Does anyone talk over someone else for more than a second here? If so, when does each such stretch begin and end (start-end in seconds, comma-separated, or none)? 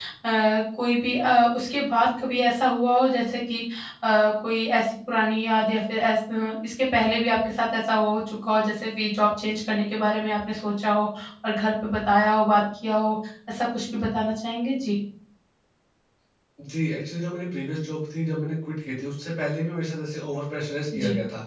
none